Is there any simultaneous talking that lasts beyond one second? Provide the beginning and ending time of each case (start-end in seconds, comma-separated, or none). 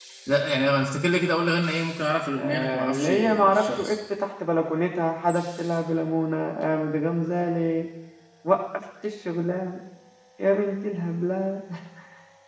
2.4-4.0